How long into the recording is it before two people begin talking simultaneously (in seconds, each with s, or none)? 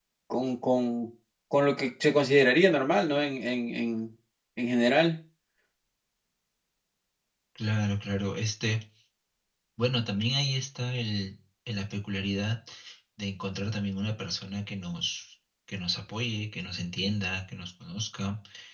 none